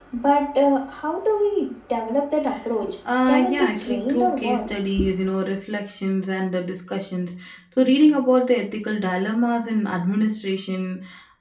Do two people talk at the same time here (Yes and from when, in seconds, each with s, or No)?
Yes, from 3.3 s